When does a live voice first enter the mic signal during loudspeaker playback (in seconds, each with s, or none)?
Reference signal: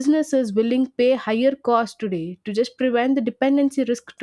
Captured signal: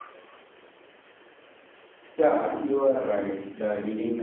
2.2 s